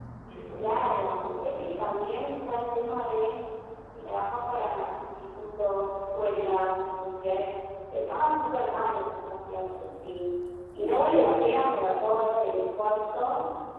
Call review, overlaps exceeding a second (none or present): present